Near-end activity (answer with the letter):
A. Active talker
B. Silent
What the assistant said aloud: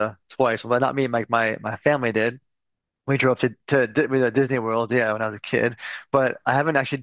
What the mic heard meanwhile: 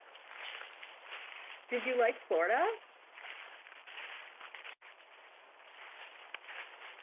A